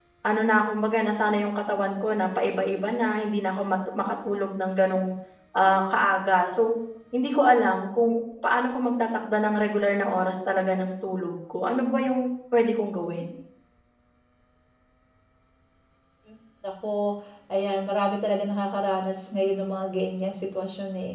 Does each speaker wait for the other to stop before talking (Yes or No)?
Yes